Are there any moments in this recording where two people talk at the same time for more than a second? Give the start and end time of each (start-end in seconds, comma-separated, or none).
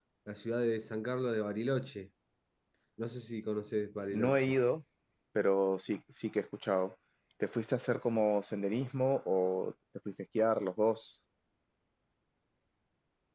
none